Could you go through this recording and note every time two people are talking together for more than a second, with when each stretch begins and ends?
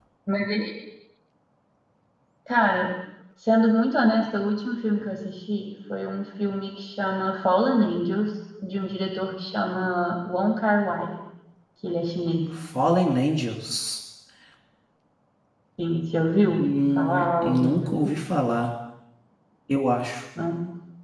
16.6-18.0

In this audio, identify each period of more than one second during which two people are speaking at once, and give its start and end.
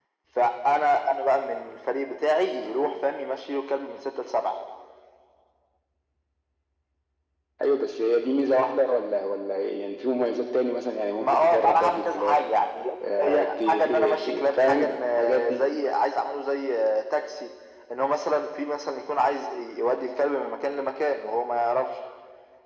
11.2-12.4, 13.2-15.6

